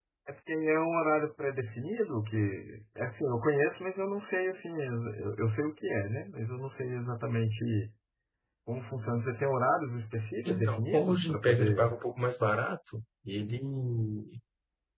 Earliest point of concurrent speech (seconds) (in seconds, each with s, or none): 10.4 s